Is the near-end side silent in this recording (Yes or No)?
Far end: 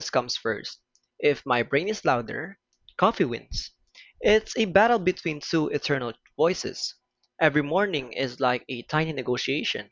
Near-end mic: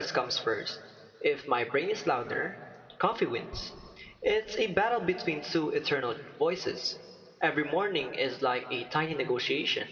Yes